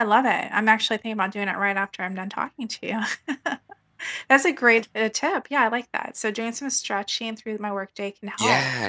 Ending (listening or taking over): taking over